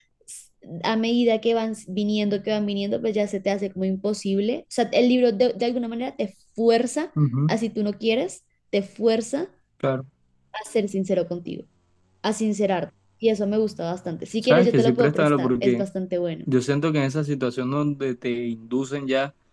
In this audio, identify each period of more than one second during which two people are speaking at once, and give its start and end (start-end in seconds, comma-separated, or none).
14.4-15.8